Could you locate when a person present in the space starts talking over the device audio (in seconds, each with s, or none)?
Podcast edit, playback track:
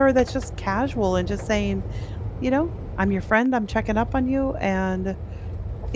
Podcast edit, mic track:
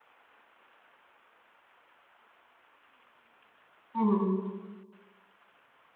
3.9 s